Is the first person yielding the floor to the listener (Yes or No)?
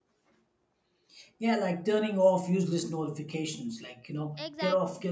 No